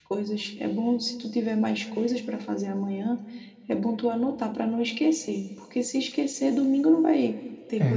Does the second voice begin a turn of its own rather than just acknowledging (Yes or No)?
Yes